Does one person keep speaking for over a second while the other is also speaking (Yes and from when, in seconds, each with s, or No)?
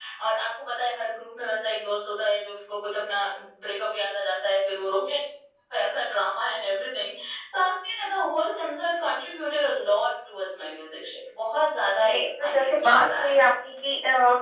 Yes, from 11.8 s